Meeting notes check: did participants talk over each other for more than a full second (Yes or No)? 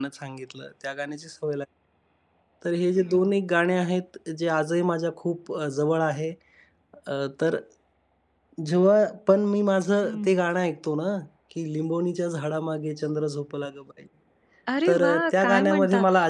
Yes